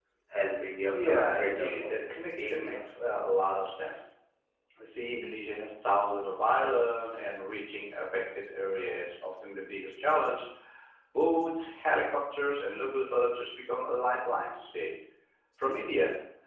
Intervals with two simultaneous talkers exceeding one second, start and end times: 0.9-3.0

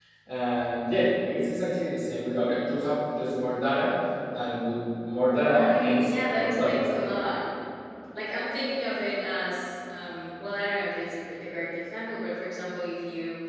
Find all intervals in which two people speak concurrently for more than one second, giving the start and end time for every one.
5.3-6.8

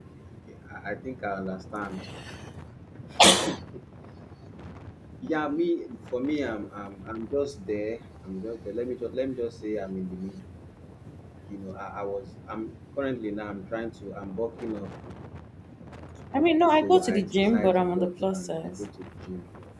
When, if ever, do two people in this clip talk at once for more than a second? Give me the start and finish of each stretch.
16.8-18.7

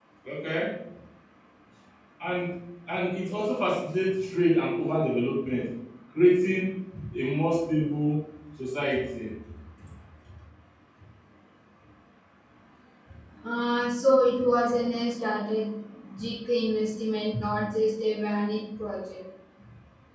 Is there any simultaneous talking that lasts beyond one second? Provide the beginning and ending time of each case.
none

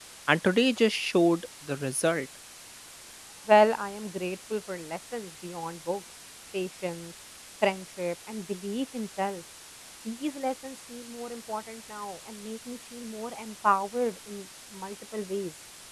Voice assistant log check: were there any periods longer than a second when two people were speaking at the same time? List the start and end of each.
none

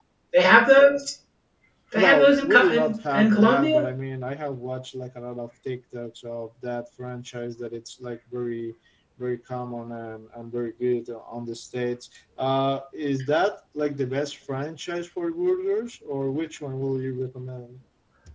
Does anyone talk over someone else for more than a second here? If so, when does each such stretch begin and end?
1.9-3.9

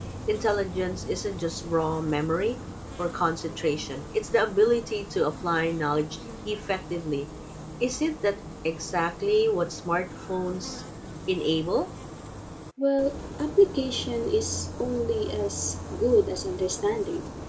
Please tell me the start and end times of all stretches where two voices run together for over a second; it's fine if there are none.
none

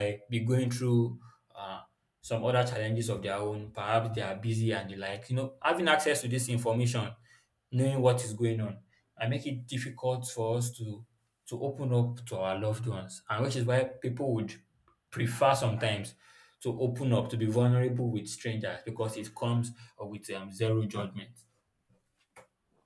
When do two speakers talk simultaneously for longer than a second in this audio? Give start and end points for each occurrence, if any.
none

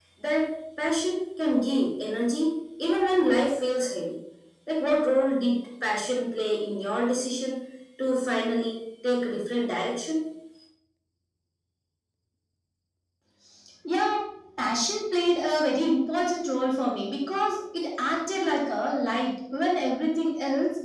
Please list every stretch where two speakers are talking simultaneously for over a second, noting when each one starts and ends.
none

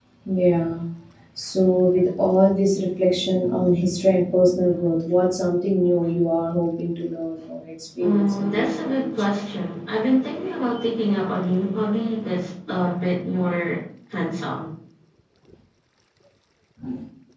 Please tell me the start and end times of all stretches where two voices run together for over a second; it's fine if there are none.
8.0-9.3

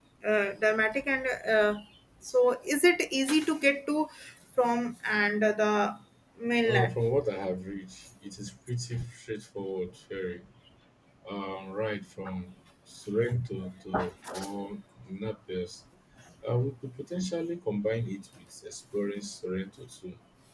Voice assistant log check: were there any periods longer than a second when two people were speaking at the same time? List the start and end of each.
none

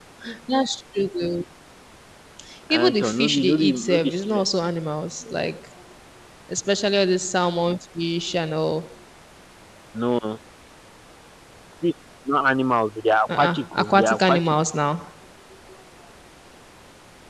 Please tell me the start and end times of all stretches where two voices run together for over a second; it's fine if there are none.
2.8-4.4, 13.3-14.5

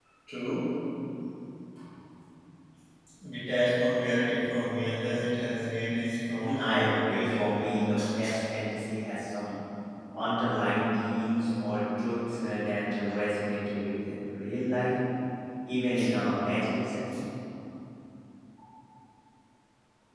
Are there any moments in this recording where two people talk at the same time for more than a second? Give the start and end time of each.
6.4-7.6

